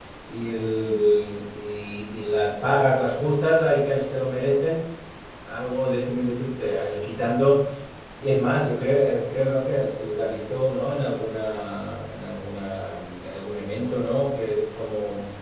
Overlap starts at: none

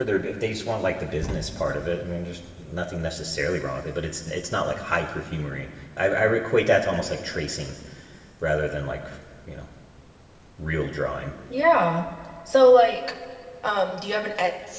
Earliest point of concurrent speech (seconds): none

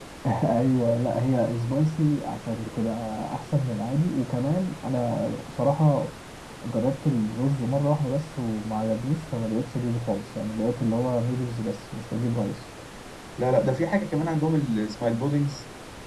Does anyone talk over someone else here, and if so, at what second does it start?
none

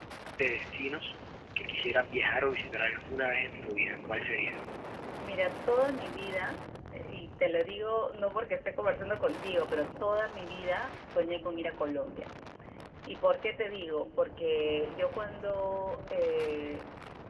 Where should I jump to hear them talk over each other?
none

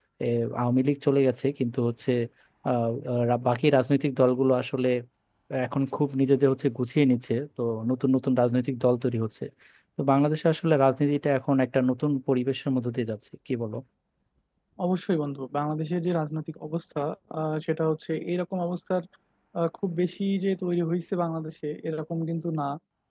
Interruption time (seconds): none

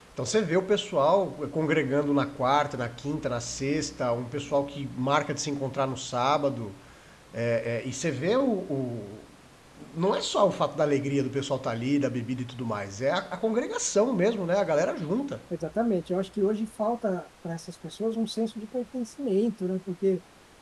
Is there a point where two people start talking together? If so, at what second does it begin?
none

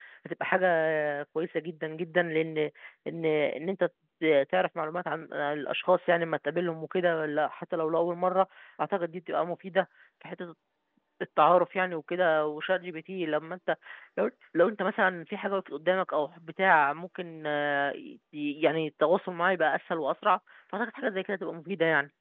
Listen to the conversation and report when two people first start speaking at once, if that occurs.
none

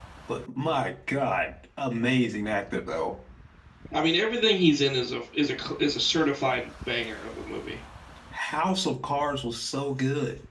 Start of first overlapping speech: none

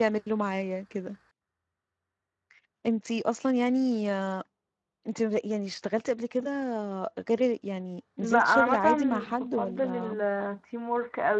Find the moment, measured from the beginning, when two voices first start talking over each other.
8.2 s

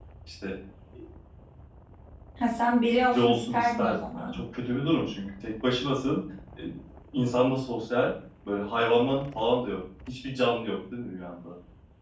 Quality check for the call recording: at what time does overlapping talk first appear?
3.1 s

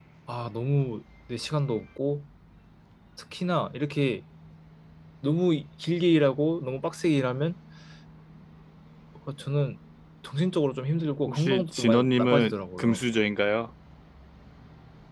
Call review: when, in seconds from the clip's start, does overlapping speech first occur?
11.3 s

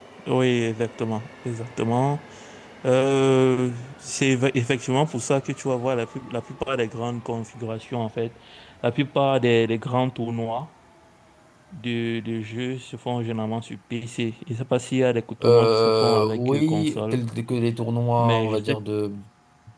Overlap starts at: 15.4 s

